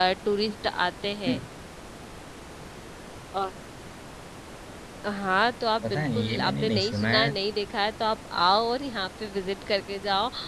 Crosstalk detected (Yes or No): Yes